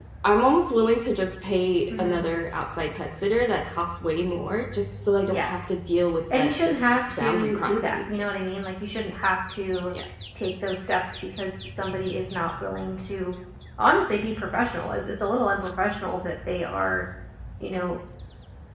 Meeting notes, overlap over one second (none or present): present